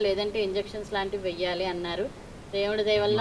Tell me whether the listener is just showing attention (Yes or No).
Yes